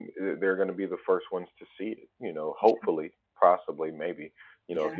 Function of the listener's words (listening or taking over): listening